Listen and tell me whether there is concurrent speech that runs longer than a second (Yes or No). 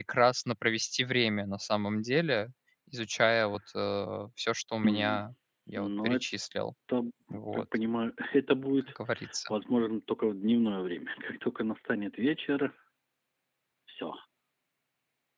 No